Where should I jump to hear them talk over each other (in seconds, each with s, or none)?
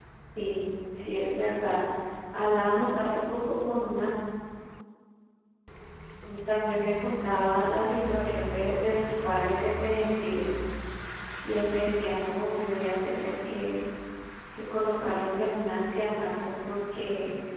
none